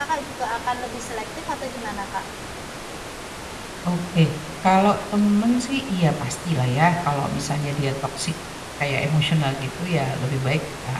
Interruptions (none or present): none